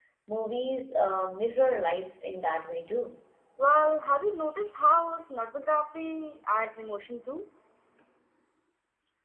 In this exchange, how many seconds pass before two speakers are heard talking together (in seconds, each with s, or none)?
none